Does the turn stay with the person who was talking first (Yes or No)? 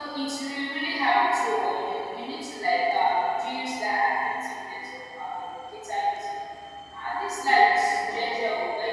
Yes